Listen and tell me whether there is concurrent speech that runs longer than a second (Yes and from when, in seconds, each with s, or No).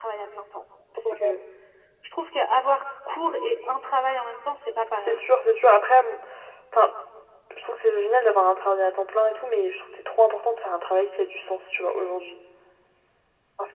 No